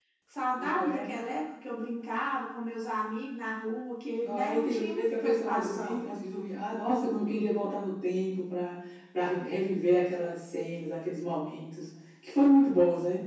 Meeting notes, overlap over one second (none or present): present